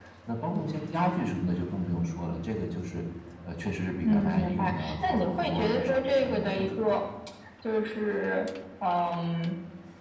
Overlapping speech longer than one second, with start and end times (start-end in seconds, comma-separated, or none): 4.0-6.8